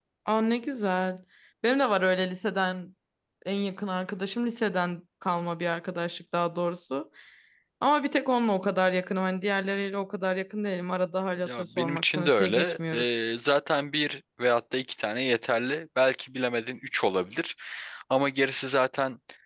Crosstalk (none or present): present